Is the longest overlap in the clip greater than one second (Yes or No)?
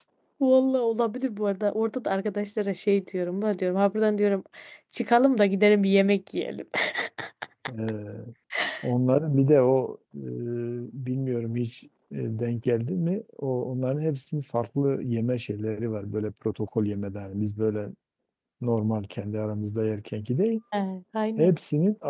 No